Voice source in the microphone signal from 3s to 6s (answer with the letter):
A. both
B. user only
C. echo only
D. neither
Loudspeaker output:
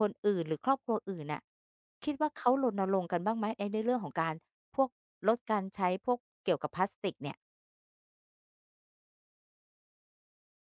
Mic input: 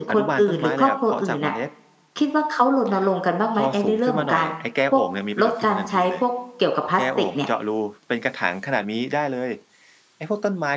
A